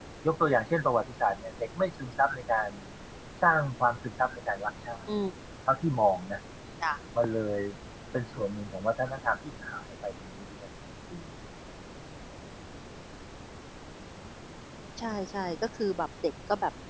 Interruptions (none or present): none